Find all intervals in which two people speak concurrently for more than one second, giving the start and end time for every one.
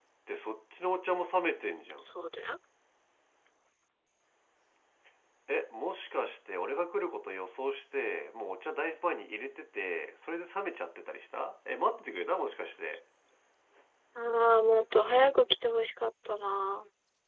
none

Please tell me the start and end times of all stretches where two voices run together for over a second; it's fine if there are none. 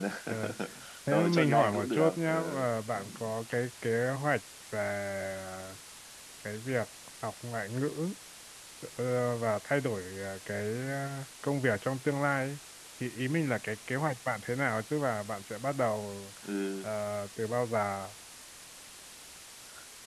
1.1-2.6

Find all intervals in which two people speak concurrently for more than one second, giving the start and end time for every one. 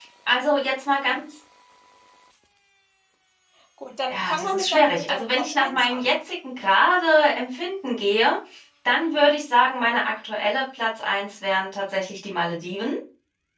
4.1-6.1

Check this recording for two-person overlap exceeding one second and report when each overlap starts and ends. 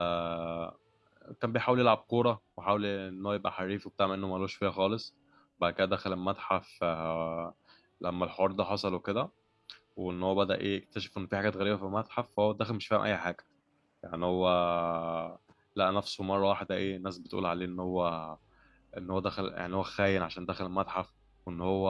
none

